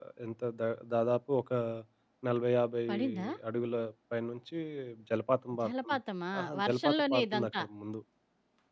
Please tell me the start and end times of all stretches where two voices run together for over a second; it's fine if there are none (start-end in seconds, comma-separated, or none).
6.4-7.6